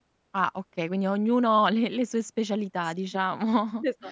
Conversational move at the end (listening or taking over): taking over